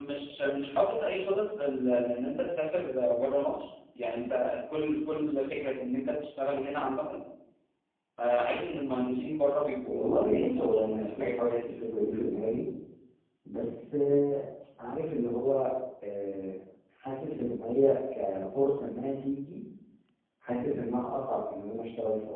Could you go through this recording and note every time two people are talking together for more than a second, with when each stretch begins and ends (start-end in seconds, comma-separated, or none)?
9.8-11.6